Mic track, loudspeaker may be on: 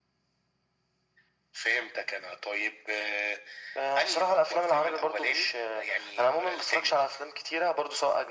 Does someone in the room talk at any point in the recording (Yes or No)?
No